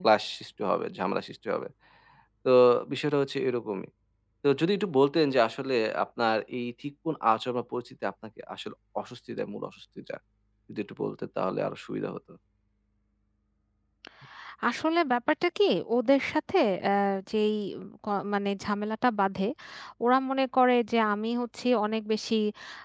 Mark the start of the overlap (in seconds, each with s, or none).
none